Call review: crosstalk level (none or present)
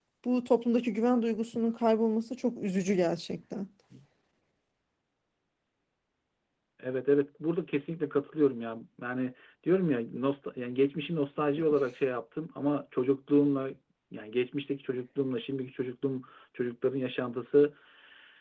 none